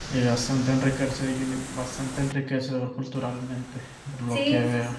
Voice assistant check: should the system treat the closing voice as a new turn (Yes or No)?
Yes